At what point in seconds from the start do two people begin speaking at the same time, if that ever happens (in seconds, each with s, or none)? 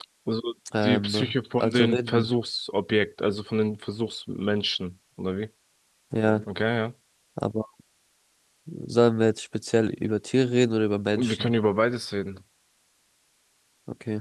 0.8 s